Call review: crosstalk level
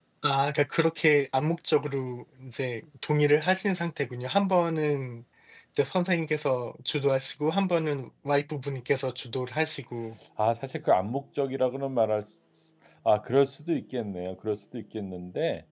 none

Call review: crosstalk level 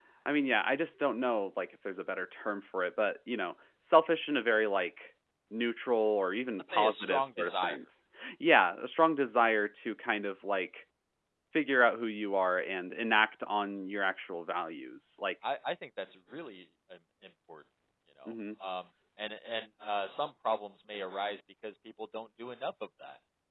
present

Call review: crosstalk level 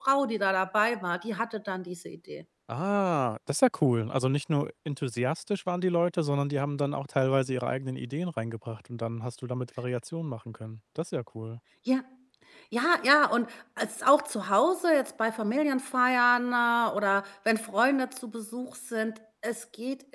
none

